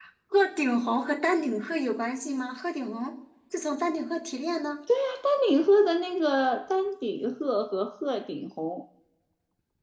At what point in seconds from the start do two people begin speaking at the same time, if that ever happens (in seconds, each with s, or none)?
none